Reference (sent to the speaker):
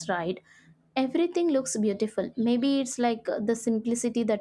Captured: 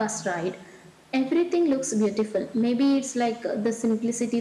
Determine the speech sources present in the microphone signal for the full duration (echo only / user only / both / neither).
echo only